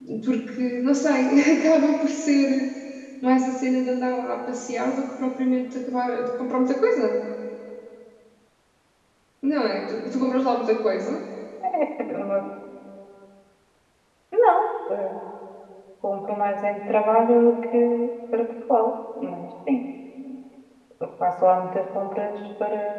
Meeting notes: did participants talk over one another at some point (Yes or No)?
No